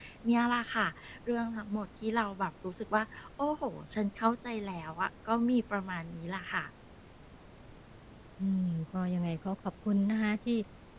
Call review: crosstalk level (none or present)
none